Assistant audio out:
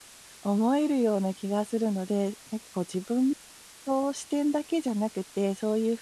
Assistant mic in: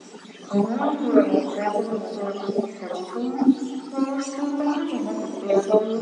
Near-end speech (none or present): none